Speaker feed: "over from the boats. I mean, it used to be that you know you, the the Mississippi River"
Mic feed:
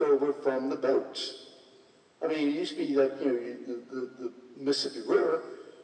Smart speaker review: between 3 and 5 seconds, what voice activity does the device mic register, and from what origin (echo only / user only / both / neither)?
echo only